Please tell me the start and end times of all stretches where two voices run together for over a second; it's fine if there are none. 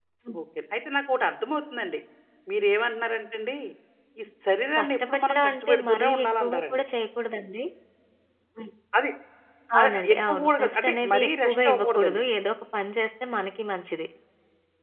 4.8-6.8, 9.8-12.2

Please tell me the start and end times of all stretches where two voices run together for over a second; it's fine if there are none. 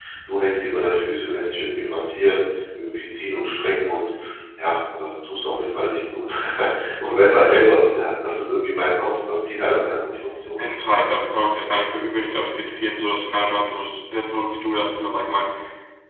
none

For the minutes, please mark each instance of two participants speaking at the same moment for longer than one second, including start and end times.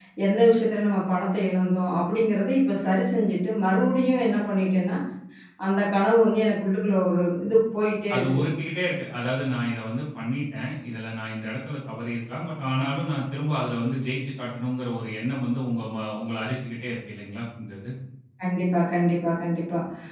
none

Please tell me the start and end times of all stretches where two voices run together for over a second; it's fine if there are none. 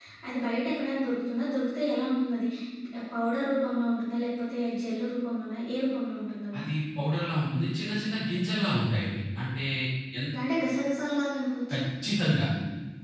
none

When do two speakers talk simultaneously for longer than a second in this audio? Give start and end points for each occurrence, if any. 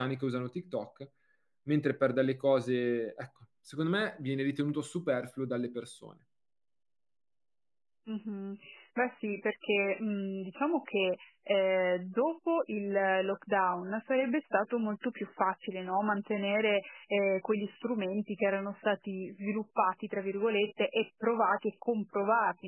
none

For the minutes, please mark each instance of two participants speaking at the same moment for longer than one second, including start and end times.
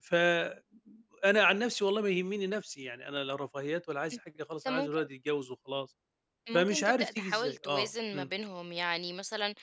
6.5-8.3

